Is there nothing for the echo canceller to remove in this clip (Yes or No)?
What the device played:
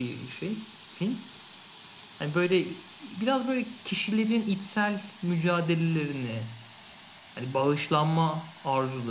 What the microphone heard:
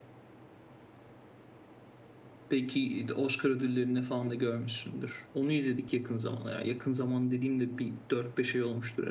Yes